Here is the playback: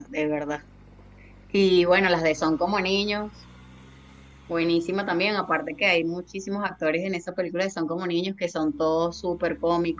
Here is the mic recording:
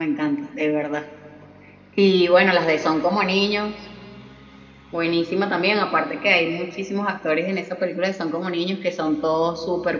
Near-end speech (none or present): none